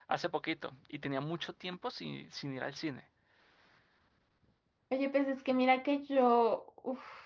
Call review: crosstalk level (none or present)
none